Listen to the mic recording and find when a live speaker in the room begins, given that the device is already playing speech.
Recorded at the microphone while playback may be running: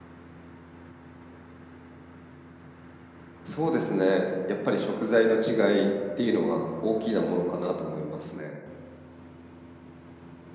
3.4 s

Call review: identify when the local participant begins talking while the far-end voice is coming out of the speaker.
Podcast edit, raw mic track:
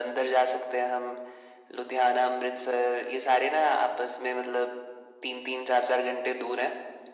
none

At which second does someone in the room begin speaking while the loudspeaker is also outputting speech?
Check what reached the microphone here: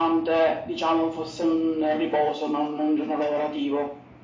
none

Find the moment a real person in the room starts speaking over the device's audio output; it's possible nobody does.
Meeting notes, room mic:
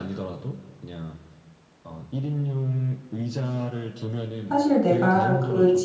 4.5 s

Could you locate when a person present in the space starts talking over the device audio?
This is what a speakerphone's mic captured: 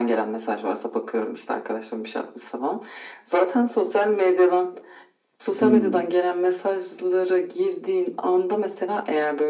5.6 s

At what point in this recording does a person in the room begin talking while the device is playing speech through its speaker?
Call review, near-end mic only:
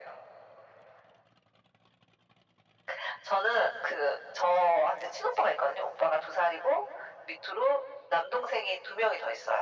none

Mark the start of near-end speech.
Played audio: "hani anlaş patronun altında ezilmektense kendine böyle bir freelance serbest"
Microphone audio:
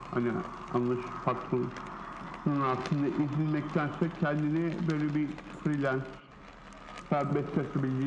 none

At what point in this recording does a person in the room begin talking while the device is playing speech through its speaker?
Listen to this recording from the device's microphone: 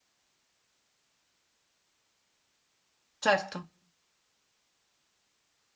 3.2 s

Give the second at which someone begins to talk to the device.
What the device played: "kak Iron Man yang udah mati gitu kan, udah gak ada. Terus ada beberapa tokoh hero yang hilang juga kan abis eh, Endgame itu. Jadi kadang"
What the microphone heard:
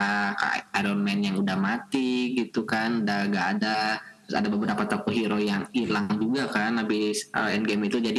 none

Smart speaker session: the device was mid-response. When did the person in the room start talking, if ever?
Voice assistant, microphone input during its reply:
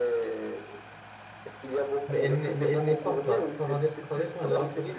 2.1 s

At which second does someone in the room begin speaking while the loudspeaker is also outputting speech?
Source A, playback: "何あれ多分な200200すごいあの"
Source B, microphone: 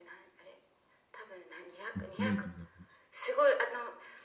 1.9 s

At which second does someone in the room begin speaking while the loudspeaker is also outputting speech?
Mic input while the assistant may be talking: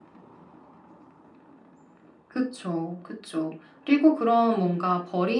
none

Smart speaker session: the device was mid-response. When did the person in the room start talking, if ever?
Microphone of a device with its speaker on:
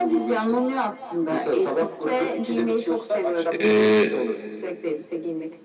3.6 s

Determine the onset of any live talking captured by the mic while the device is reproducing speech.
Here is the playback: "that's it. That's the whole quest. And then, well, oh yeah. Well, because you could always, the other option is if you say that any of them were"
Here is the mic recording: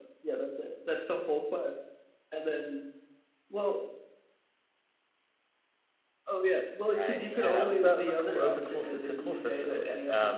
6.8 s

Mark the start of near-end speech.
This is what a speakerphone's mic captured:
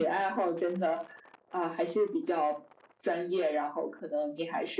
none

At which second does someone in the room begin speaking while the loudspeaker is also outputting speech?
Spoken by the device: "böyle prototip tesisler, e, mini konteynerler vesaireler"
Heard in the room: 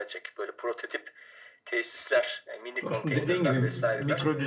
2.8 s

